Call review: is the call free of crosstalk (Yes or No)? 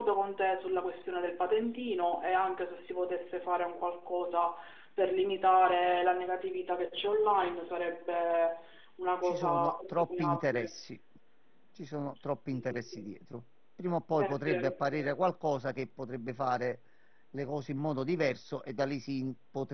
No